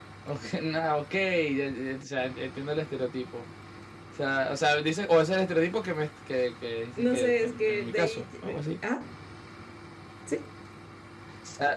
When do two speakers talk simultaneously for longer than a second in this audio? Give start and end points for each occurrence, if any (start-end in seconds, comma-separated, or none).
7.0-8.3